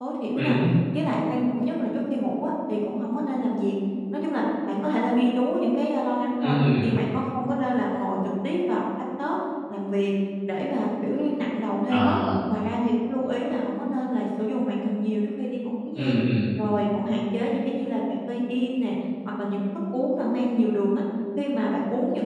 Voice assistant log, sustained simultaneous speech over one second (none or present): none